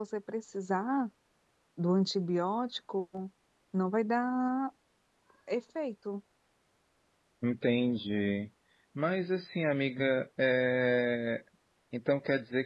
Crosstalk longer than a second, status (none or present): none